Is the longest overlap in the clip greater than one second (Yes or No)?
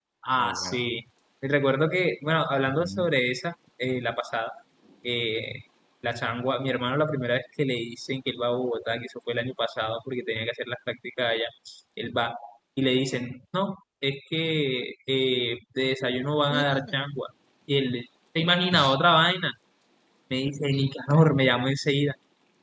No